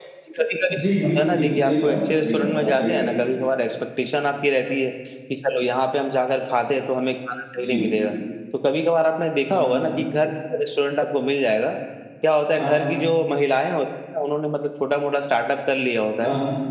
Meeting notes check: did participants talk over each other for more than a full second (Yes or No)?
Yes